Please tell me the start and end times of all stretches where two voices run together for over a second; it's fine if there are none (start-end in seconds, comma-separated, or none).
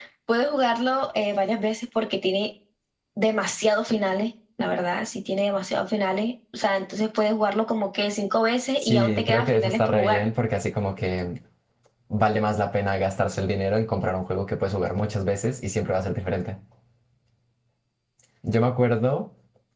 8.8-10.3